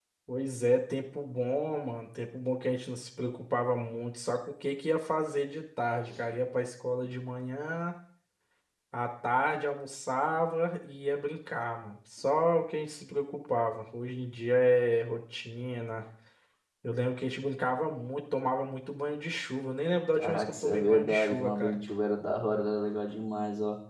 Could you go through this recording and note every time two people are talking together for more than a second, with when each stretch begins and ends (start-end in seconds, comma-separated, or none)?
20.1-21.8